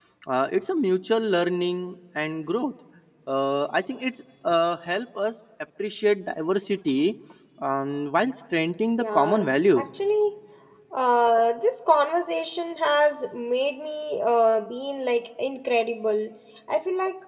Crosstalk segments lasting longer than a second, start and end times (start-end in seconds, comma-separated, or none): none